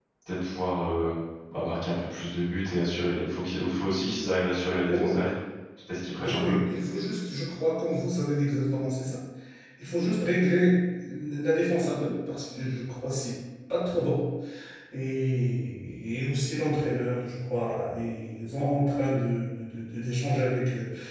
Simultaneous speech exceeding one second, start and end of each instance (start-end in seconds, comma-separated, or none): none